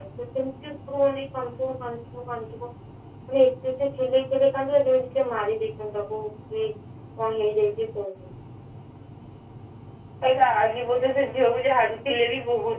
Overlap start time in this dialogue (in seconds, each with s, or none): none